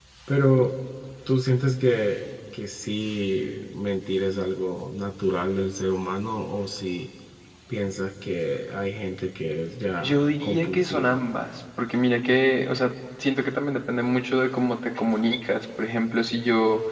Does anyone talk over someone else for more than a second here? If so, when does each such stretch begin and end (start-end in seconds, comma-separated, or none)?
10.0-11.2